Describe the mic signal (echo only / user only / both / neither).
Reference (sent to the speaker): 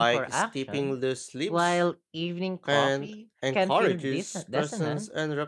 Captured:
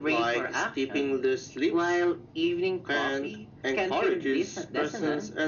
echo only